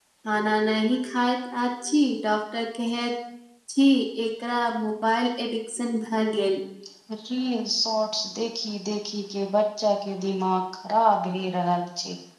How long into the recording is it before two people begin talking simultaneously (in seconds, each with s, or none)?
none